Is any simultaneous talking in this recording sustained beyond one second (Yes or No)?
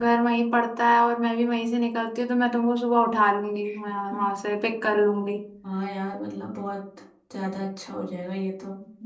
No